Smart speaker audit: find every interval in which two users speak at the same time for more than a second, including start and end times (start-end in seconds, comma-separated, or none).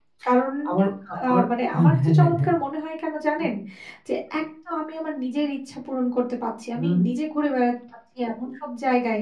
1.3-2.5